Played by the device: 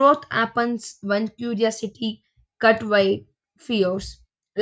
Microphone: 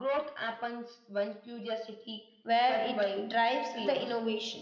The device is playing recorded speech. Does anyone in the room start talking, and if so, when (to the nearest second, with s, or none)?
2 s